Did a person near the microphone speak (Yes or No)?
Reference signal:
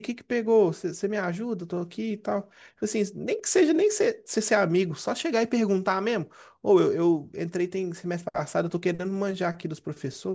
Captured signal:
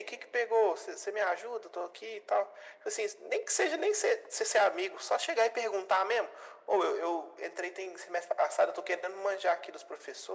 No